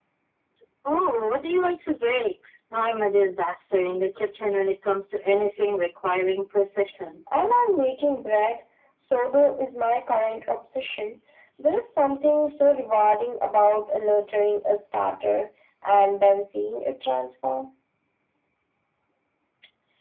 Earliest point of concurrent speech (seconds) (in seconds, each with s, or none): none